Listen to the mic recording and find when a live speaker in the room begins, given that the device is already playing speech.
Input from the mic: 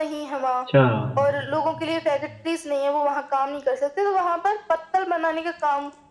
0.5 s

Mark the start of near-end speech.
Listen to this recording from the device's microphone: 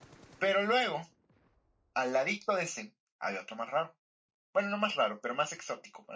none

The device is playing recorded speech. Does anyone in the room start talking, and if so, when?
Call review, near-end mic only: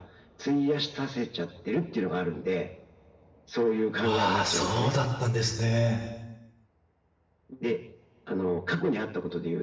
4.0 s

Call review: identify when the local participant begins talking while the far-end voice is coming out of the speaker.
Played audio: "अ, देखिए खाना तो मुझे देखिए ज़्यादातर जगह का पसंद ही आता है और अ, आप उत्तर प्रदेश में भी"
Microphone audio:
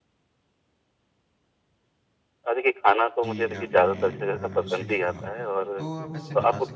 3.2 s

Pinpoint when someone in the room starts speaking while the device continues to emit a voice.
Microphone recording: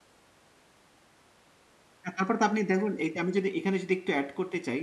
2.1 s

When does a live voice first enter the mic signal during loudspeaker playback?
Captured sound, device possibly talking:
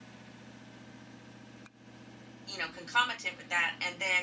2.4 s

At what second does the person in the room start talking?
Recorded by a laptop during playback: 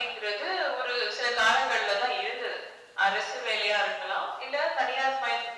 none

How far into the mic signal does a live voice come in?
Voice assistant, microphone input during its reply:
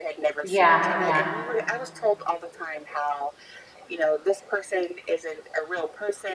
0.4 s

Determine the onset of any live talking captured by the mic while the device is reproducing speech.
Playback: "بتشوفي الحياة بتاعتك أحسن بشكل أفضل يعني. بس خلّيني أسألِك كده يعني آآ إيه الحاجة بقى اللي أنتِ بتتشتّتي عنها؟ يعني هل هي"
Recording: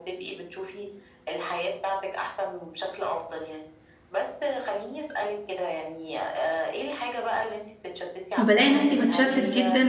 8.4 s

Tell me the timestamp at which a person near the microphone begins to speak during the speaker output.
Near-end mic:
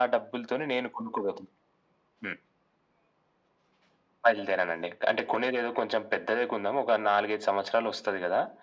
none

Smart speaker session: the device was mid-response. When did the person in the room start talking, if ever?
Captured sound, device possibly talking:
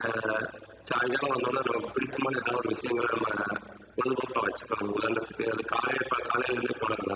none

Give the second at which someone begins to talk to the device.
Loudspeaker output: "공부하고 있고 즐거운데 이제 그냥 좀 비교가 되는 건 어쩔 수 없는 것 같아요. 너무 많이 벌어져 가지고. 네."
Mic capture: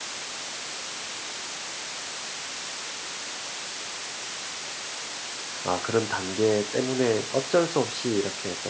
5.6 s

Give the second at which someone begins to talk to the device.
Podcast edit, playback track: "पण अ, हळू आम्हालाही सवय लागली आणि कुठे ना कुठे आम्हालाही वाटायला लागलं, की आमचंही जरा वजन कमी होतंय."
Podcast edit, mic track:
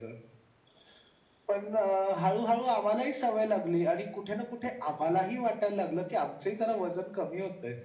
none

